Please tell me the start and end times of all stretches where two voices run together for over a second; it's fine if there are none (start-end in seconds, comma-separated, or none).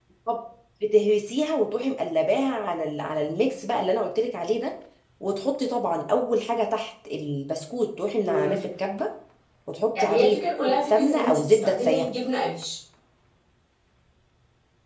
10.0-12.0